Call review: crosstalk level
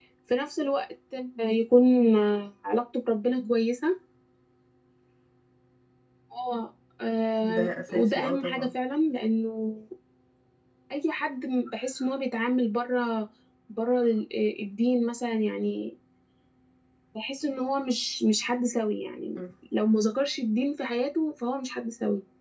present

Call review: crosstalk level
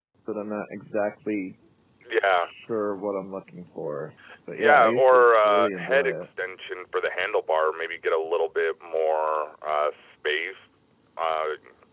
present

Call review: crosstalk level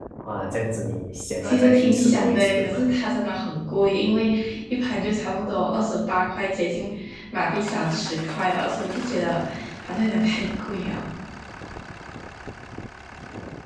present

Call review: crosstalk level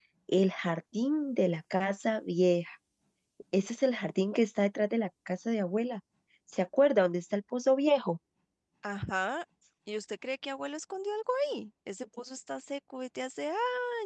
none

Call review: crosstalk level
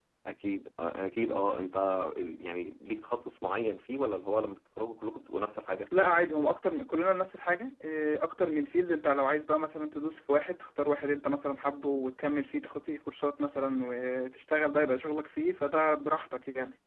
none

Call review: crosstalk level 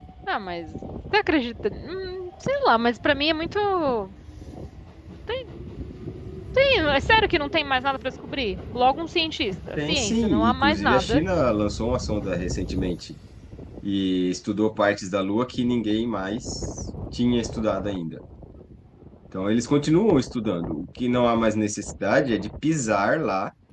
present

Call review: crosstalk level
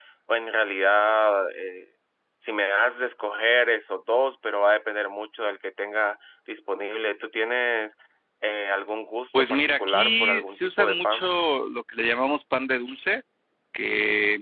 present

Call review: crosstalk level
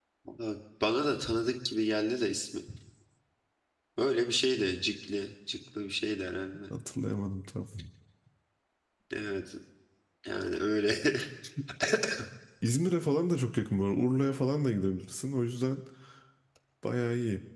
none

